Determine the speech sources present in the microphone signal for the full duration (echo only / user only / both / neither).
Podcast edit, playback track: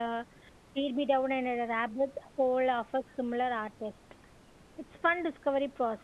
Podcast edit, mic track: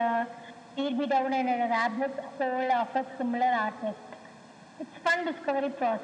echo only